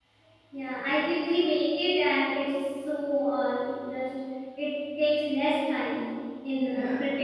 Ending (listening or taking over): listening